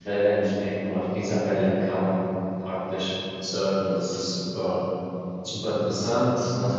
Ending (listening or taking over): listening